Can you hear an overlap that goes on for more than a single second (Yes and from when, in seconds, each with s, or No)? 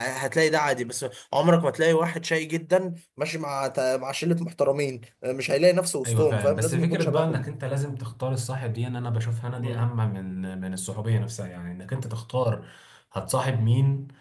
Yes, from 6.0 s